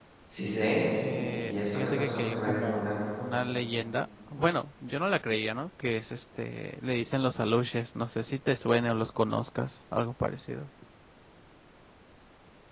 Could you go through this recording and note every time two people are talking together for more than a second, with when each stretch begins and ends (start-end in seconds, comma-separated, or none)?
1.4-2.9